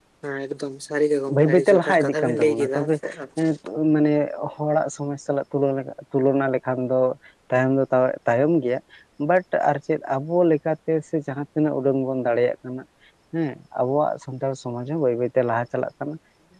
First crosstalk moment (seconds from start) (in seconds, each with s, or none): 1.3 s